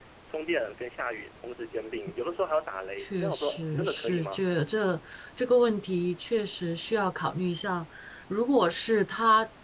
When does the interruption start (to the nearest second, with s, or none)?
3 s